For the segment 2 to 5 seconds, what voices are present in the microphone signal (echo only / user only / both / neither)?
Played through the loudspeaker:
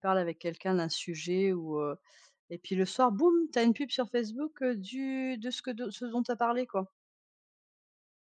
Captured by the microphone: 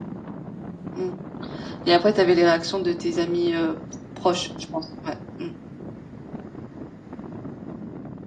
user only